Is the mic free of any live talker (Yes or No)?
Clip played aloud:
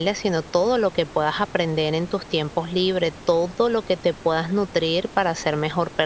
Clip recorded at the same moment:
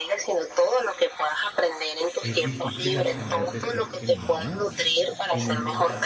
No